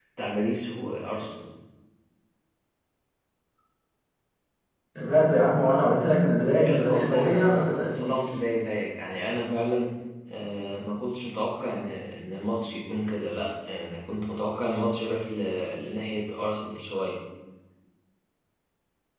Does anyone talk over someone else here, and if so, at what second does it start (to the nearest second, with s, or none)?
7 s